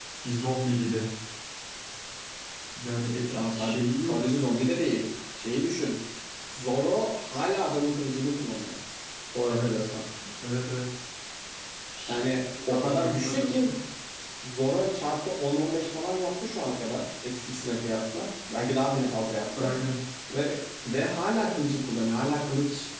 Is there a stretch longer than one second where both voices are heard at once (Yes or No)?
Yes